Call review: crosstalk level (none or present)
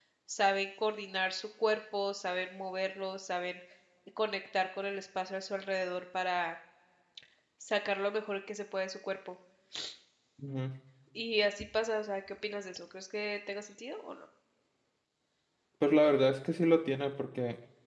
none